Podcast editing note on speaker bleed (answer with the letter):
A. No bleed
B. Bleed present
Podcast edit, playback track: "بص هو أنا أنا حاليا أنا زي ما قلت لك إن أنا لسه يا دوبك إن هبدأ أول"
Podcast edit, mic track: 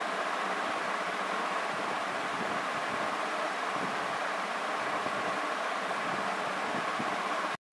A